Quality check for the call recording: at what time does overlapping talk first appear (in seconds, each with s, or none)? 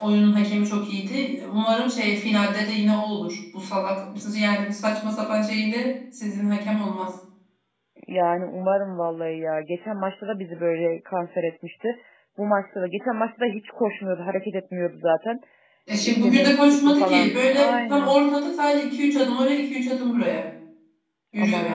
16.0 s